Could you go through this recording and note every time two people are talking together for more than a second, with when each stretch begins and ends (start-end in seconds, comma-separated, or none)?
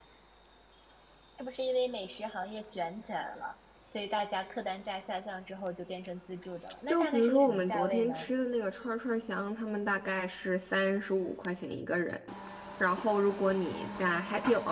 6.9-8.3